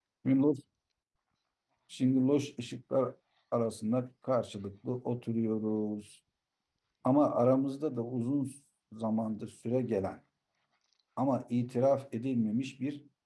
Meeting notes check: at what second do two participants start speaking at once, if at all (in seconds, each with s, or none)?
none